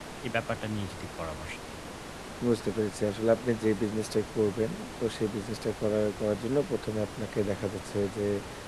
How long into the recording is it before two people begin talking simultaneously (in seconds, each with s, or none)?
none